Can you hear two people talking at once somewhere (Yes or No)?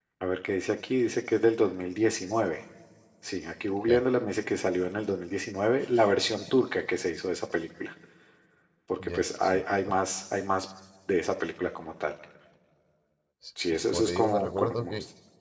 Yes